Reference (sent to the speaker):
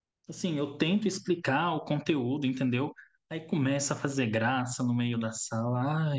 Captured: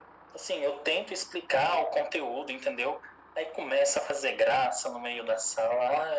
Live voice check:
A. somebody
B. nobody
B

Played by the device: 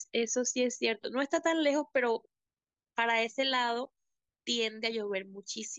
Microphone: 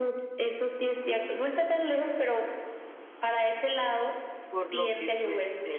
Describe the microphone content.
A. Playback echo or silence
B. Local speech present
B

